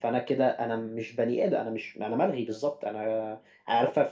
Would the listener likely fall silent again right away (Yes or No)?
Yes